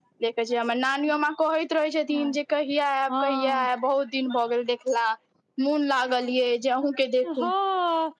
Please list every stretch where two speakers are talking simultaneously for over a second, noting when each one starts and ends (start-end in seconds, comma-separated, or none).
none